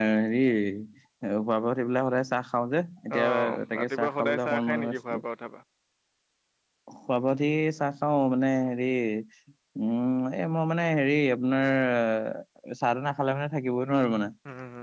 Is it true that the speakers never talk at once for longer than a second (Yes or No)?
No